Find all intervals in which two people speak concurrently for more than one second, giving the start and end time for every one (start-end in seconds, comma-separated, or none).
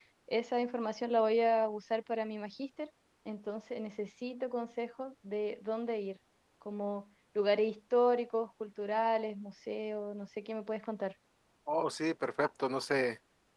none